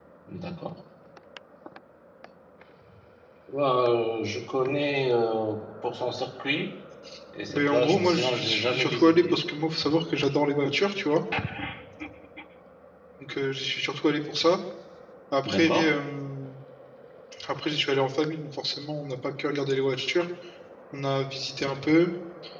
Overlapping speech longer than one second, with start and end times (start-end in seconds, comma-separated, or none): 7.5-9.4